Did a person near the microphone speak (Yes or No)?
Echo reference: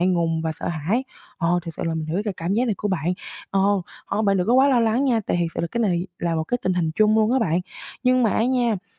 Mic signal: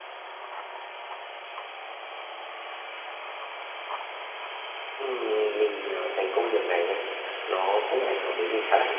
Yes